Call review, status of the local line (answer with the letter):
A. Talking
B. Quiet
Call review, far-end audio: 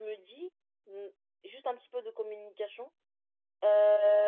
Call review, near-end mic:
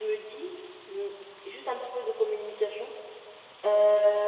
B